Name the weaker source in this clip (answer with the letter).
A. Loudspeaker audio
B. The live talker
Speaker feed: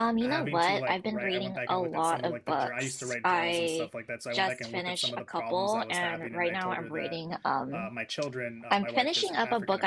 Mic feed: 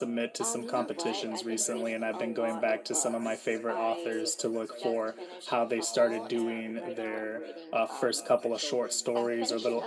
A